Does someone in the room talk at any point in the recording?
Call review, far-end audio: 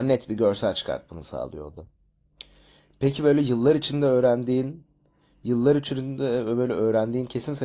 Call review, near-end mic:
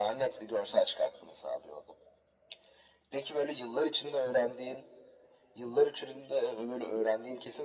No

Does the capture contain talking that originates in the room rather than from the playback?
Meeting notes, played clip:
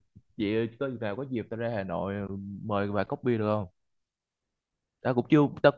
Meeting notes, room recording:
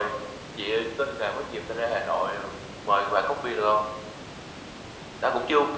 No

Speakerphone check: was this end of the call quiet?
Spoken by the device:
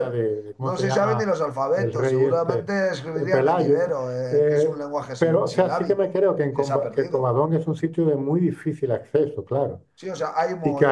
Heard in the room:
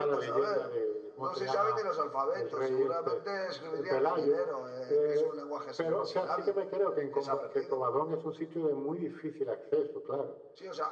Yes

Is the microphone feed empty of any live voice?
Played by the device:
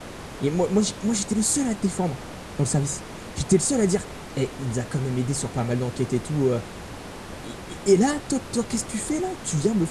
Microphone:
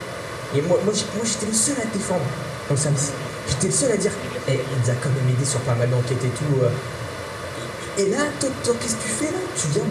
No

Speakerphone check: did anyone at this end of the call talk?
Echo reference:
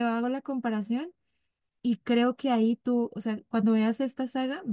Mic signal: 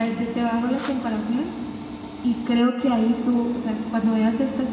No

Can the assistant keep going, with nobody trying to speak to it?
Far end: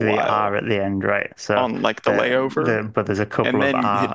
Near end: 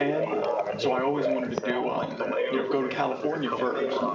No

